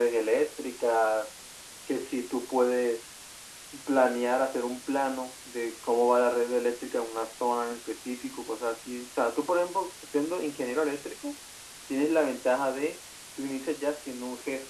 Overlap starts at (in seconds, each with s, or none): none